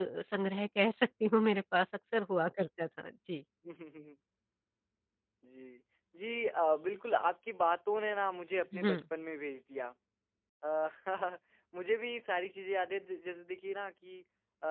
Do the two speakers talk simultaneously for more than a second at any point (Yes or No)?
No